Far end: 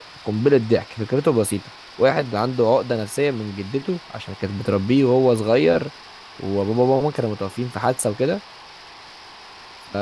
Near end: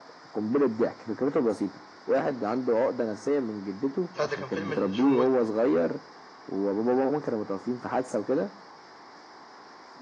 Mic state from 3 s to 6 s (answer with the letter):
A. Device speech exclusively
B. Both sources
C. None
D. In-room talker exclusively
B